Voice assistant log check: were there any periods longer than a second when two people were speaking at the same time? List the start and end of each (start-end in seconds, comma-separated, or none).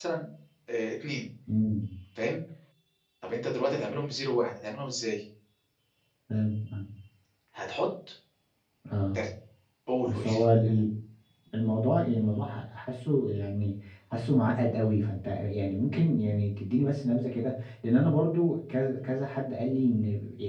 none